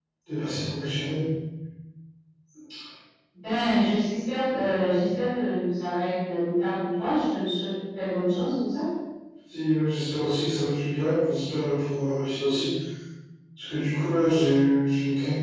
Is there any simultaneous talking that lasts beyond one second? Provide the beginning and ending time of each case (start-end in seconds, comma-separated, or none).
none